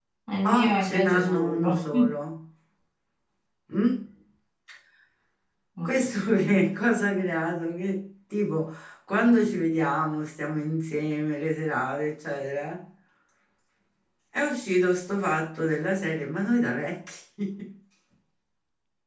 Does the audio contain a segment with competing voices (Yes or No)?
Yes